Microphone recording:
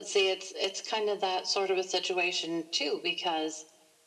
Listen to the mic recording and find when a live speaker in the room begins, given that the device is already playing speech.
none

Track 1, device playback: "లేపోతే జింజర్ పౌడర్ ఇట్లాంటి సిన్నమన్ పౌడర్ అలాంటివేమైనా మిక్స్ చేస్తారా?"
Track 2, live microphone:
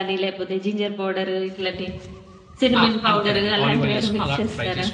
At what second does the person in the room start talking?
3 s

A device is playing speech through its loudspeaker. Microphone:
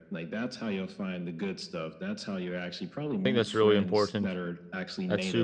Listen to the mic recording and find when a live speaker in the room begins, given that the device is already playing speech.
3 s

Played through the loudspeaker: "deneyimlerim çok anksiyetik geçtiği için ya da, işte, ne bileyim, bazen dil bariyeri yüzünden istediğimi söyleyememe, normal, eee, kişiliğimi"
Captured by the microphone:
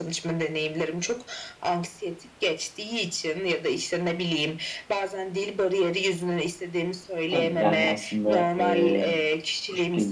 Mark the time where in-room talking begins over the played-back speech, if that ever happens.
7 s

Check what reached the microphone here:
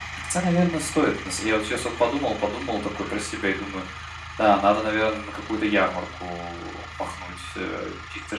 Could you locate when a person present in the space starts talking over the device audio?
none

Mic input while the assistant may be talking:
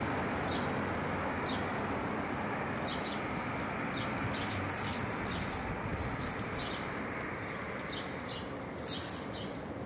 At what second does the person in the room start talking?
none

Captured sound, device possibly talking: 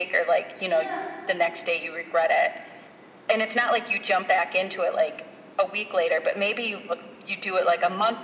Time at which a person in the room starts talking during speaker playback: 1 s

